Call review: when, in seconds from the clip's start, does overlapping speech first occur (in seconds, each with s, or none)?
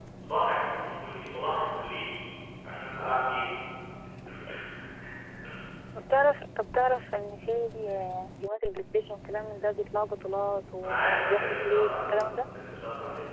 10.8 s